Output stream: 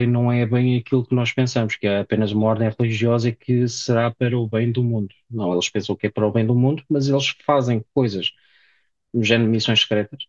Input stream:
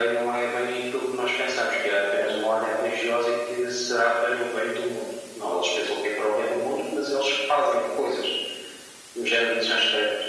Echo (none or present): present